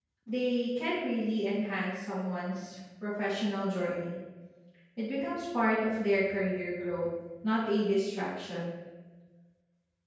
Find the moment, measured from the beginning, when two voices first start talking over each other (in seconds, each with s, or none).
none